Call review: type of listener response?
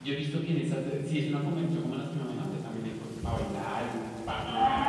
taking over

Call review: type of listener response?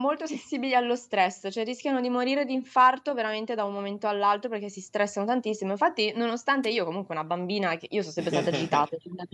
listening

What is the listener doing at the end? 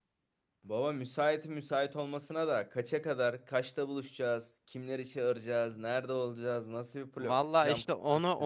taking over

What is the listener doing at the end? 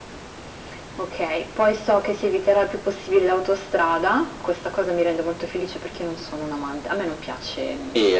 taking over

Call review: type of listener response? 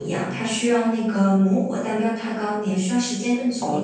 taking over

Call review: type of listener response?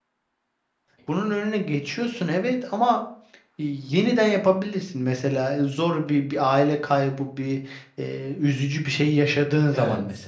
taking over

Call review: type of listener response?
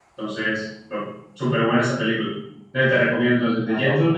listening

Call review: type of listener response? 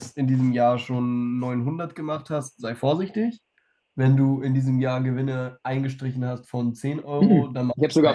taking over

